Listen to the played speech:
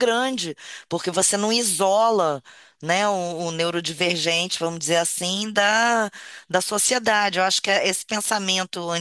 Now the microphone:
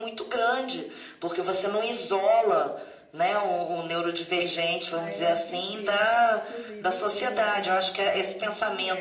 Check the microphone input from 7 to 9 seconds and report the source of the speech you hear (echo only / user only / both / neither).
both